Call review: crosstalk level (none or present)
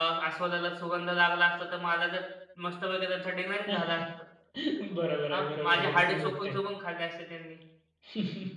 present